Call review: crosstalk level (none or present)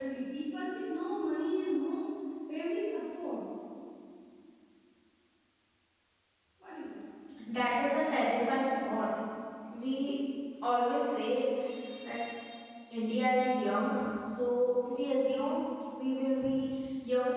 none